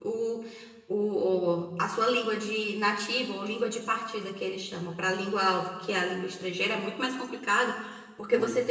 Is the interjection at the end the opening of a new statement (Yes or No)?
No